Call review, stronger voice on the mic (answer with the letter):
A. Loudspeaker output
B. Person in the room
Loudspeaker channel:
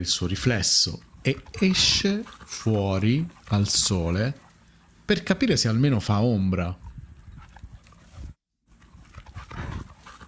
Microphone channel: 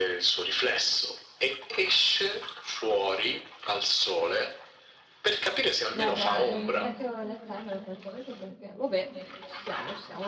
A